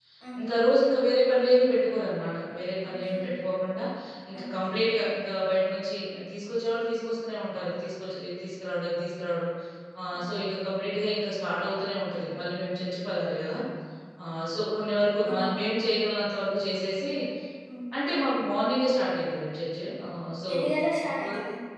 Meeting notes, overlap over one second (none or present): none